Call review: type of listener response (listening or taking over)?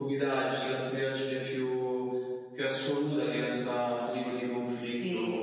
taking over